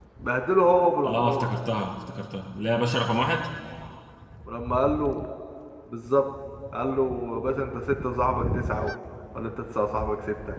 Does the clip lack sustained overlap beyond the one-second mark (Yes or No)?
Yes